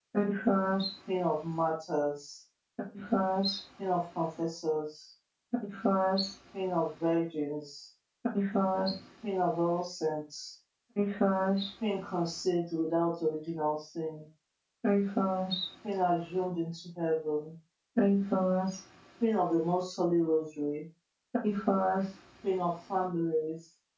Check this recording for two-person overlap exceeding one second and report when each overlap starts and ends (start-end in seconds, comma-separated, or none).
none